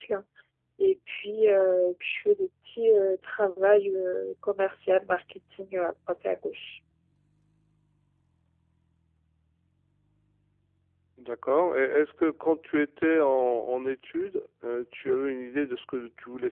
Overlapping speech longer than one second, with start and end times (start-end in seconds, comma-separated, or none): none